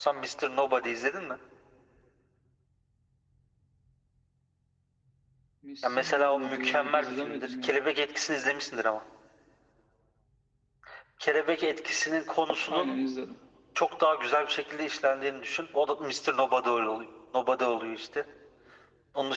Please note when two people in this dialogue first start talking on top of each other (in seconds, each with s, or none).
5.8 s